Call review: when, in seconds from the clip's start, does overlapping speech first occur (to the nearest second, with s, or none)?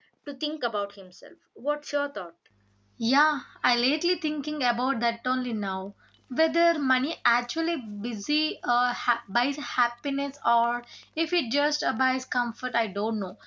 none